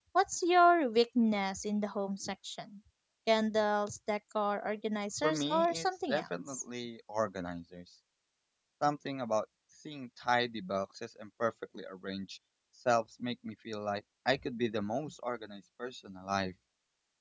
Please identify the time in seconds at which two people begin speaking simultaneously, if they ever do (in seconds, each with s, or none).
5.2 s